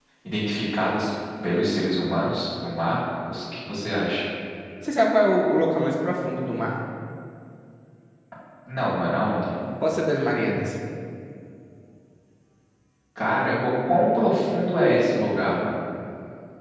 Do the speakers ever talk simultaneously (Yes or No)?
No